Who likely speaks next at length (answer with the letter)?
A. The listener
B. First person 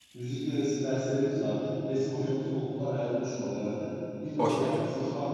B